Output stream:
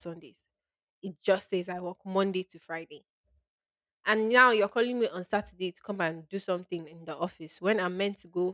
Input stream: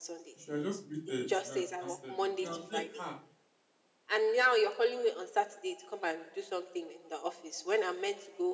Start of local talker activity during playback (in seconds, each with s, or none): 0.3 s